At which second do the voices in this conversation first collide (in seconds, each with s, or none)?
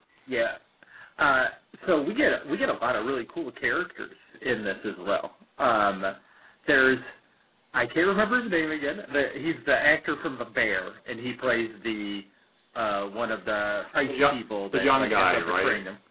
14.0 s